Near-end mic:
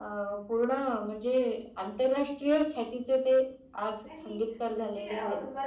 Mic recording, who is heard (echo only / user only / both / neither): both